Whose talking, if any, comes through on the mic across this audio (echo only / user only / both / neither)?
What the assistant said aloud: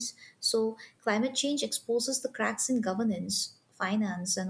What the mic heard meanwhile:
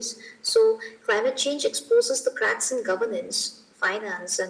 echo only